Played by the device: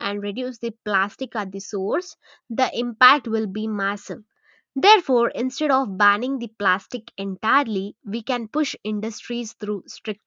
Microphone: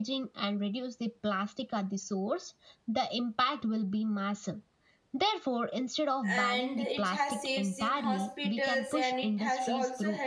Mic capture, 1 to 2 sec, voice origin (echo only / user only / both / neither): echo only